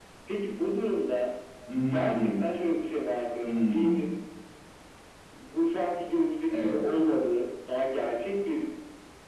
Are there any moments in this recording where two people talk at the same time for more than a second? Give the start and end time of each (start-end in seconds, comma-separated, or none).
none